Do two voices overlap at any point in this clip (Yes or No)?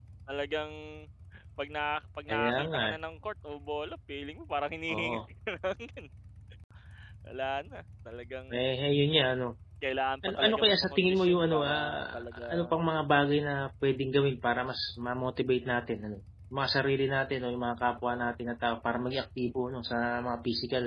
Yes